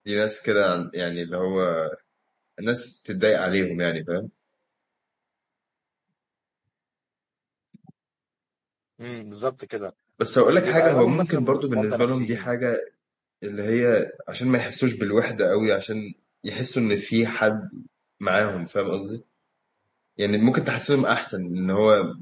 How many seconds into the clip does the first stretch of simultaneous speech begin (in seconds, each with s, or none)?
10.5 s